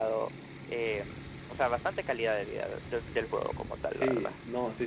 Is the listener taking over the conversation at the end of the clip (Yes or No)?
Yes